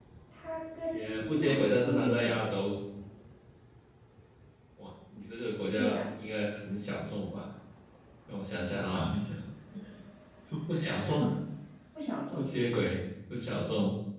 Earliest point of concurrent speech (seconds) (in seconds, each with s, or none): 0.9 s